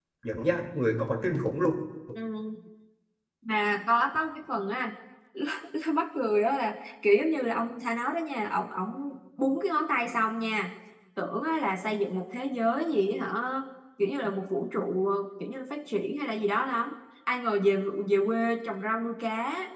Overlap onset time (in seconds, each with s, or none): none